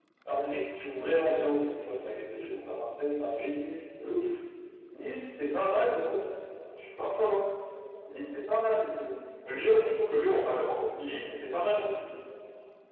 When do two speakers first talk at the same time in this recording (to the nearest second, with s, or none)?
none